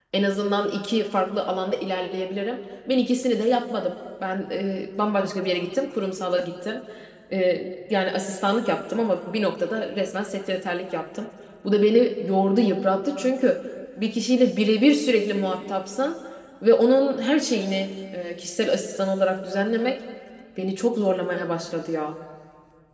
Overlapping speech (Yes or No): No